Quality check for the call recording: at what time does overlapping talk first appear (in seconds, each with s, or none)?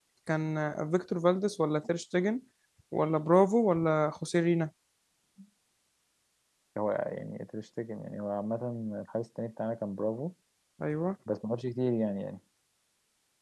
none